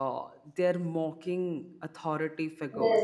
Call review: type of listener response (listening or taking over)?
taking over